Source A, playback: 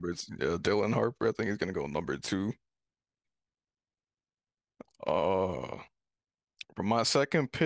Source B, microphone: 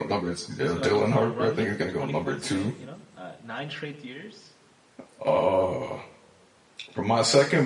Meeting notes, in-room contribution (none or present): present